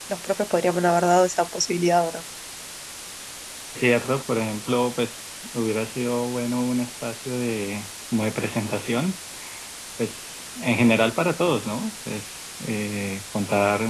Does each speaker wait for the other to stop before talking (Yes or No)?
Yes